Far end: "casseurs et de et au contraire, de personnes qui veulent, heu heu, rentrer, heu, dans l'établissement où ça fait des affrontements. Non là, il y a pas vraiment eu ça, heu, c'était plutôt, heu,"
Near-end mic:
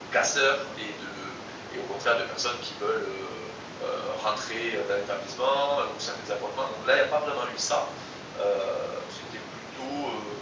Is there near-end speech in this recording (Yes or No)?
No